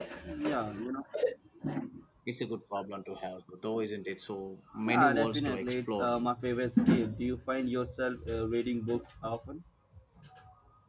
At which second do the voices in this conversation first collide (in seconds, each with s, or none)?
4.7 s